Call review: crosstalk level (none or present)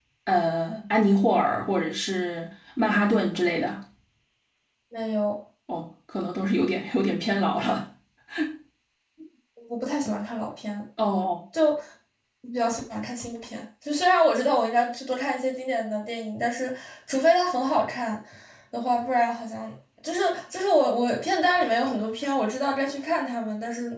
none